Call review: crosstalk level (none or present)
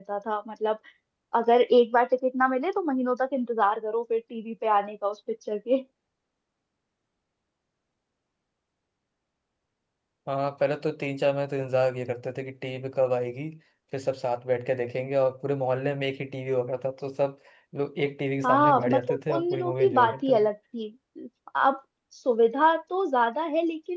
present